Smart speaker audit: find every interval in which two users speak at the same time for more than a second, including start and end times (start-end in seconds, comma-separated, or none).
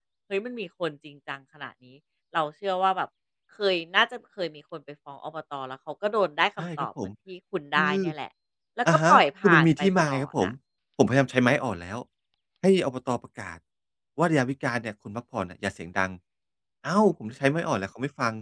8.9-10.5